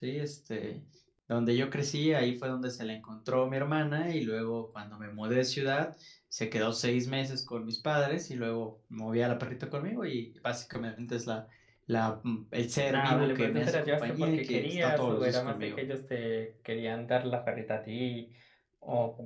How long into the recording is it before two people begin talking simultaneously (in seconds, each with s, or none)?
12.9 s